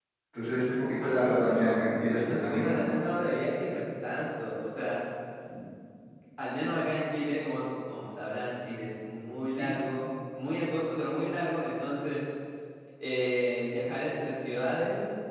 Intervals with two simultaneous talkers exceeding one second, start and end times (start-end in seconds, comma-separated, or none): 1.0-2.8